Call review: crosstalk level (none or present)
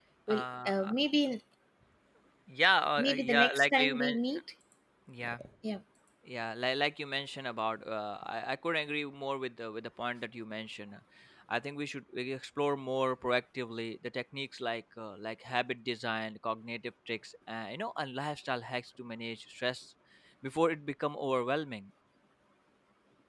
present